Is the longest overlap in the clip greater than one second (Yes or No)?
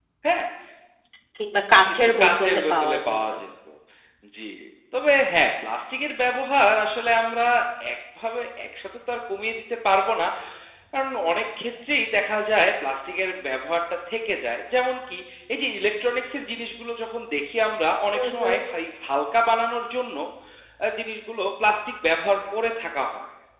Yes